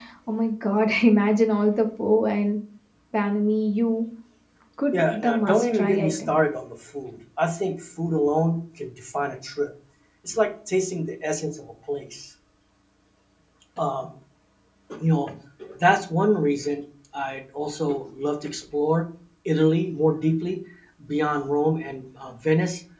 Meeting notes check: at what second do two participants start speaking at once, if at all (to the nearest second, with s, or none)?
5 s